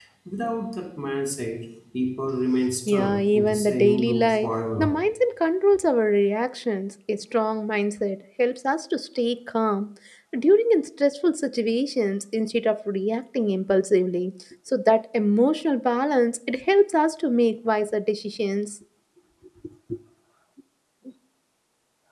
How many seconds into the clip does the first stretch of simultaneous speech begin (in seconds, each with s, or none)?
2.9 s